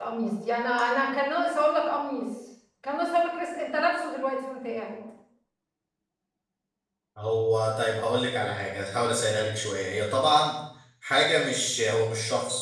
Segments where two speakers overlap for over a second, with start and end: none

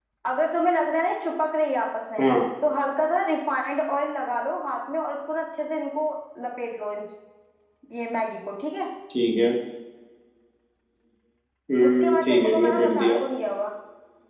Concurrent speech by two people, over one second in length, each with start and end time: 11.8-13.2

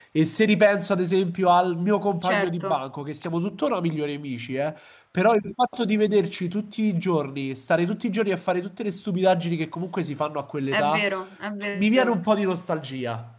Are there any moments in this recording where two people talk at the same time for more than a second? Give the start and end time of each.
none

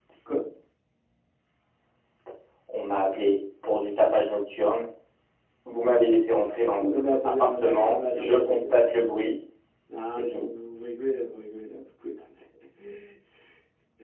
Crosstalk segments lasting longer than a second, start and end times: 6.8-8.6

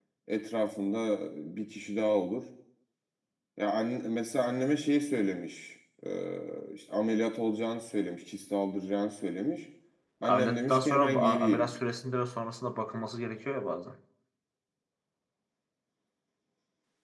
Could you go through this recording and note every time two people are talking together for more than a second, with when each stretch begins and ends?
10.3-11.7

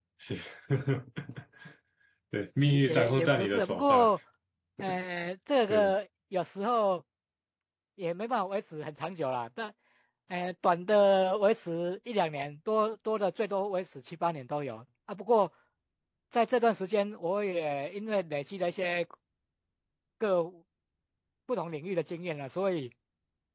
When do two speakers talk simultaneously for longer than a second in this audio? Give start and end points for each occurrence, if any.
2.7-4.1

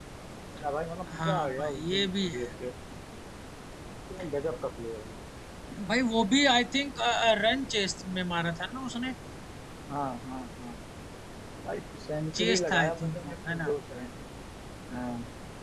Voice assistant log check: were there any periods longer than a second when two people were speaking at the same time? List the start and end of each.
1.1-2.5, 12.4-13.7

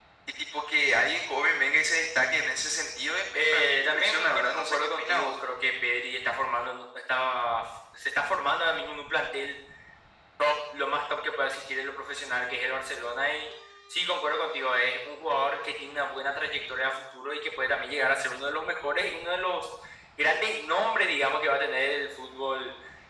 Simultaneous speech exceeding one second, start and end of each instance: 3.3-5.3

